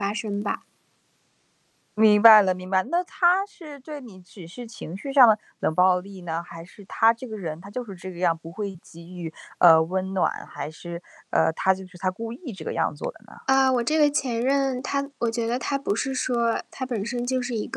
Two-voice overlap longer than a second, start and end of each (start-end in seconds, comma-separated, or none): none